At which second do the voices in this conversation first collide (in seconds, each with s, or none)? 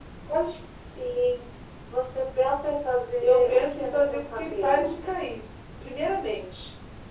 3.2 s